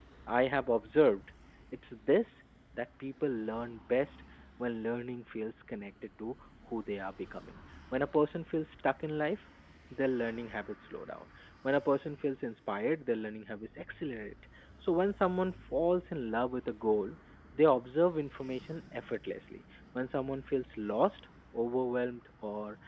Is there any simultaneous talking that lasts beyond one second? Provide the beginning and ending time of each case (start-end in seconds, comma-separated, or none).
none